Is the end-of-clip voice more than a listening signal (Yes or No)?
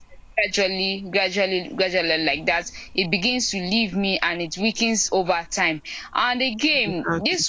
No